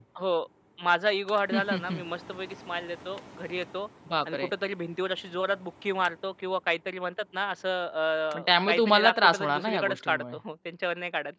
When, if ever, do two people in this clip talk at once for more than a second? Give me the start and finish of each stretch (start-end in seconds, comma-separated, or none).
8.3-10.3